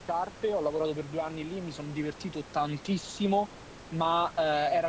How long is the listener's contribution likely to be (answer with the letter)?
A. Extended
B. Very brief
B